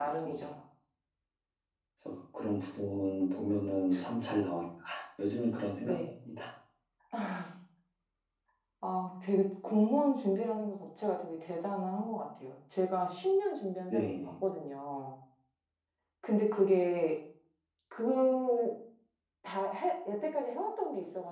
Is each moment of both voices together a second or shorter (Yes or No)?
Yes